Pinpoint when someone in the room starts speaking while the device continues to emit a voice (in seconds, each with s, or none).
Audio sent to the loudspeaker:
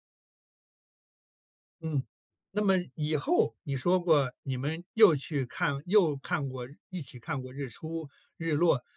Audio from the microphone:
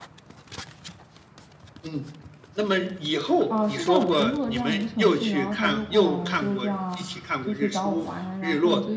3.5 s